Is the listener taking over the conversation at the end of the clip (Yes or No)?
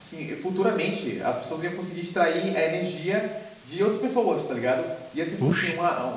No